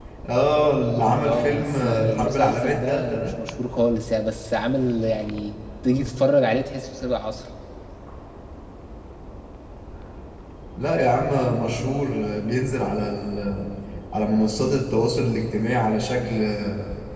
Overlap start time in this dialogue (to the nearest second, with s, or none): 1 s